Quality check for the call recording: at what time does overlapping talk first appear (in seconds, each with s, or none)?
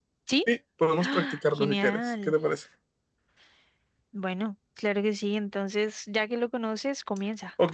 1.0 s